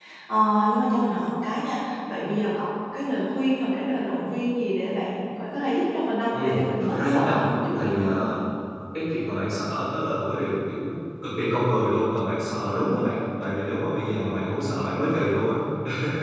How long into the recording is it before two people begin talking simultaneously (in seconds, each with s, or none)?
6.3 s